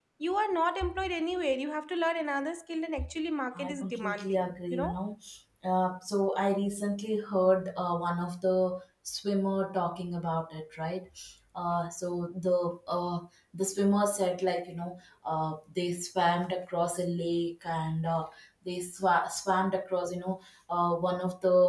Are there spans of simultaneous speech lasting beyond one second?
Yes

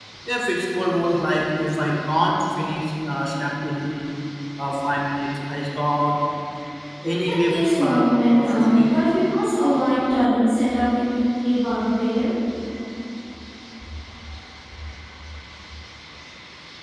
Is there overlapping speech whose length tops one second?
Yes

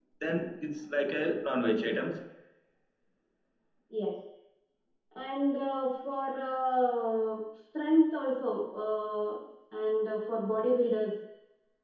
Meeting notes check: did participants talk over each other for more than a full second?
No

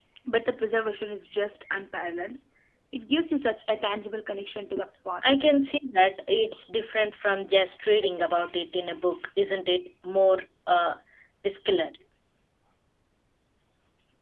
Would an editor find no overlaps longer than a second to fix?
Yes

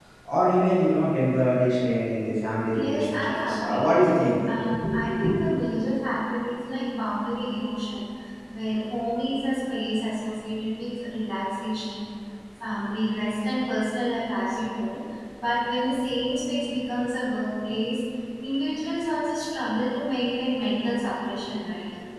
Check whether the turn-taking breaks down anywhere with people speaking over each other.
Yes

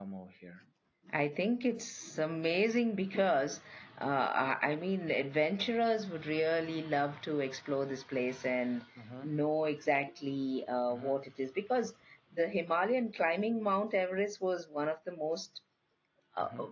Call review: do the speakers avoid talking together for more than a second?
Yes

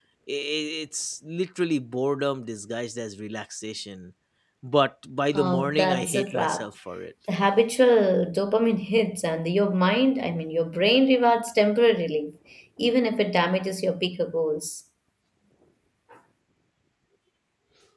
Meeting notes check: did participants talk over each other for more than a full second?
Yes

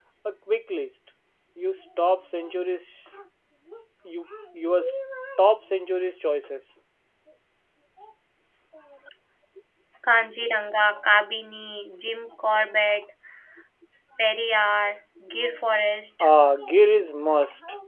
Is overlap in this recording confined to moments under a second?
Yes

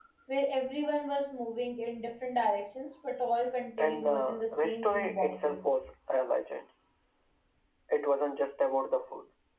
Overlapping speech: Yes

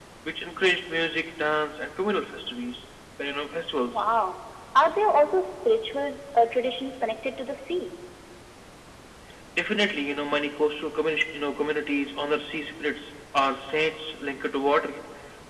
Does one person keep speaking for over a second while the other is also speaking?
No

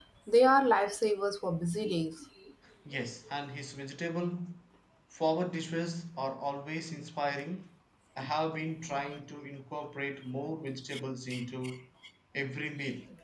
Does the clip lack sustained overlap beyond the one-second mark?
Yes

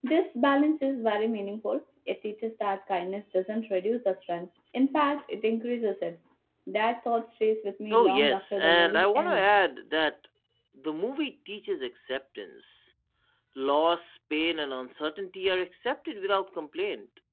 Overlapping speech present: Yes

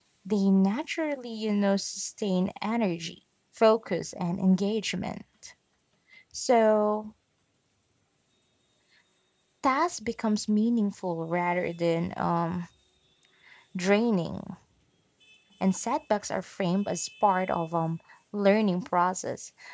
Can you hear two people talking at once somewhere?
No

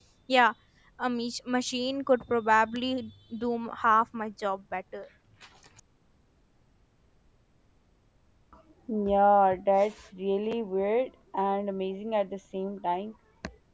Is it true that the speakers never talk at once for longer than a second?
Yes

